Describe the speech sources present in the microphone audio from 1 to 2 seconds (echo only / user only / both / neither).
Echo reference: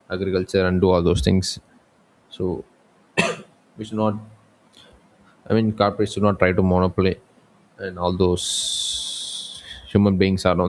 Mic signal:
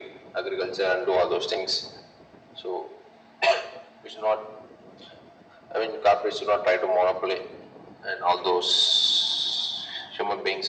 echo only